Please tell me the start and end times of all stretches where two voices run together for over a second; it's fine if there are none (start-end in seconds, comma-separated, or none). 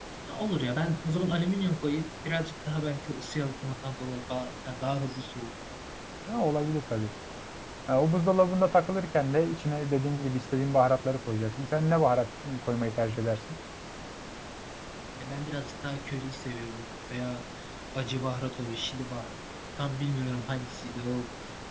none